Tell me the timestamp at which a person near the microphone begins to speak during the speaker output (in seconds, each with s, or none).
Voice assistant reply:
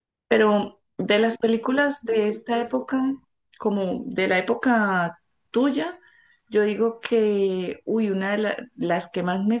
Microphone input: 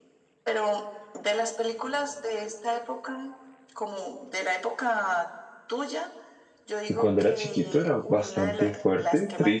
7.0 s